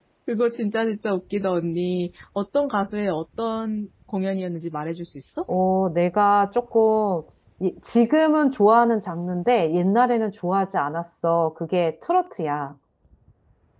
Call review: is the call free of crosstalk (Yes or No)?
Yes